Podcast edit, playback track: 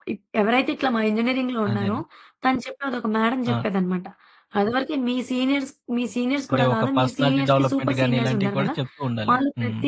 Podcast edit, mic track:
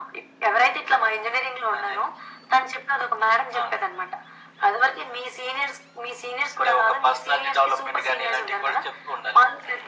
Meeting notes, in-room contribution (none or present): none